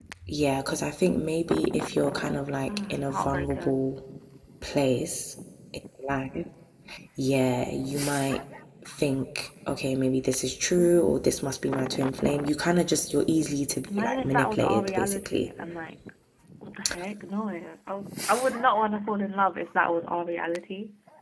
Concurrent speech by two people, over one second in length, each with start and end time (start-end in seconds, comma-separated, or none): 2.7-3.9, 13.9-15.5